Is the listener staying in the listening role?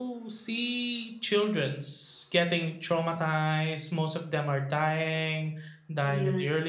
Yes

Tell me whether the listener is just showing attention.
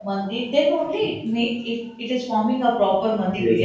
No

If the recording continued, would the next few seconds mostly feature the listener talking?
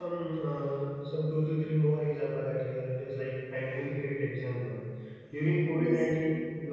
No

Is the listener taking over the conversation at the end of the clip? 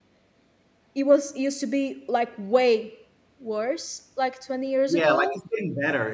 Yes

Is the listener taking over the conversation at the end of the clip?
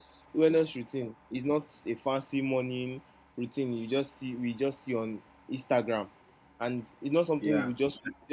No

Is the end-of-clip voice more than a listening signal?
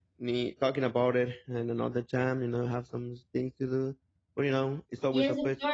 Yes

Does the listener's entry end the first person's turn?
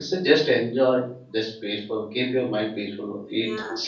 Yes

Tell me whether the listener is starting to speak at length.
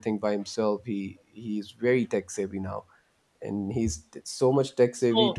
Yes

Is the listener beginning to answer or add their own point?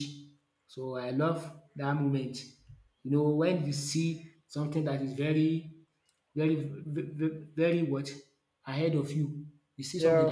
No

